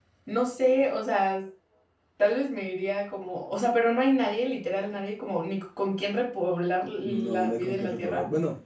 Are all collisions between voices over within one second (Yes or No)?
No